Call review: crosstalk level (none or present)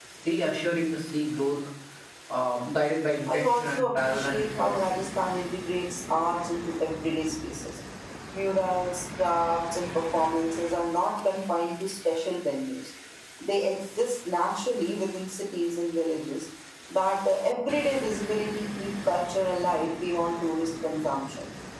present